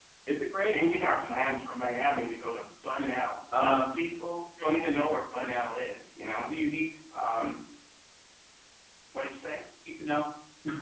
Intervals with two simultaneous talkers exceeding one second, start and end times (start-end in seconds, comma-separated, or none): none